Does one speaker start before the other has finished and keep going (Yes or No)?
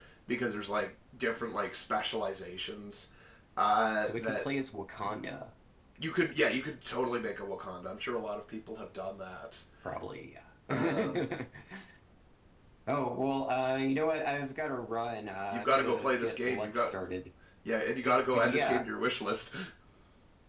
Yes